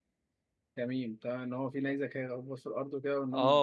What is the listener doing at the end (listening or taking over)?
taking over